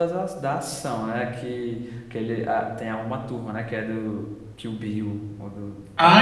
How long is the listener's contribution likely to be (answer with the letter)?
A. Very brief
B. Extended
B